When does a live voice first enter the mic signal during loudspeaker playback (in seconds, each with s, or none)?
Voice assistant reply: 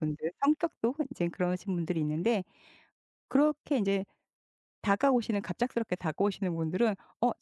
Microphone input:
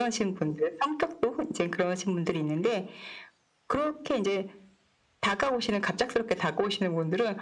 none